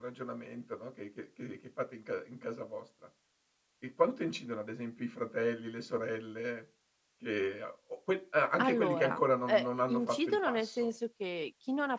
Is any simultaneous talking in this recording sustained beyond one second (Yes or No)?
Yes